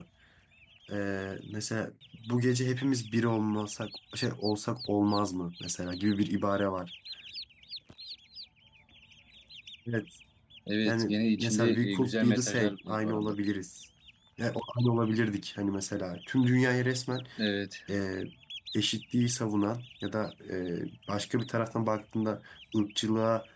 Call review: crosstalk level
present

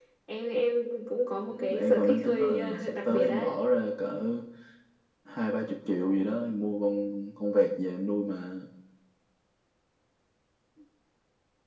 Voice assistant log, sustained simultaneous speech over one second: present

